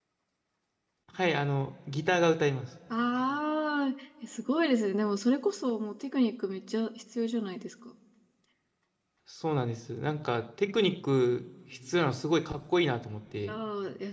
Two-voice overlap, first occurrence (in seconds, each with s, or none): none